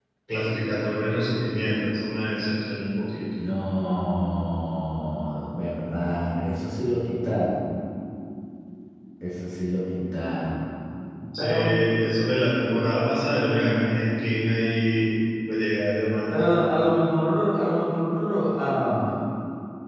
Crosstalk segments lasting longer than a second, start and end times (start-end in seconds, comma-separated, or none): none